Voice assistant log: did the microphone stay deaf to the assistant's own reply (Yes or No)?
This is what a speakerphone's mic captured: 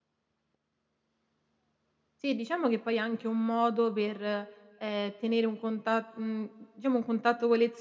Yes